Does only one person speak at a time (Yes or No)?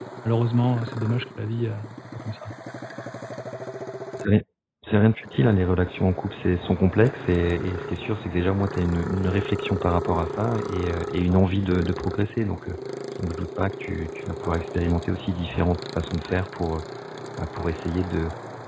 Yes